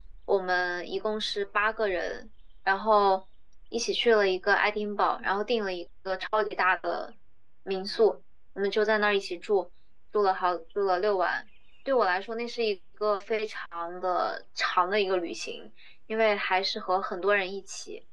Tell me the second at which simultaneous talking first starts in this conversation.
none

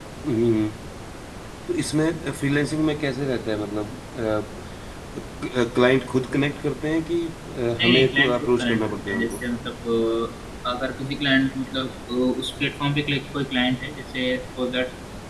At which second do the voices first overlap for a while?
7.8 s

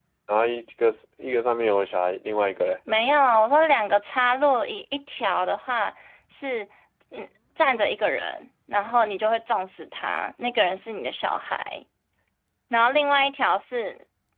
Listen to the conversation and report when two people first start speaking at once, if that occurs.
none

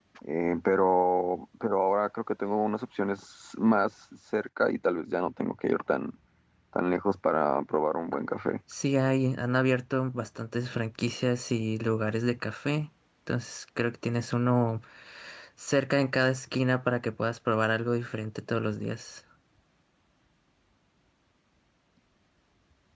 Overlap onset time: none

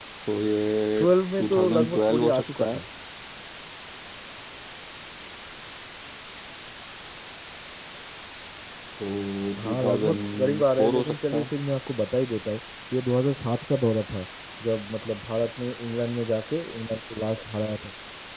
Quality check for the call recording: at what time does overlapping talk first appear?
1.4 s

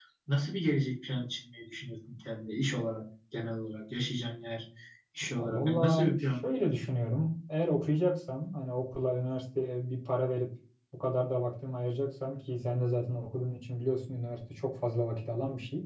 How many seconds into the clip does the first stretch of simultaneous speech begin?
5.4 s

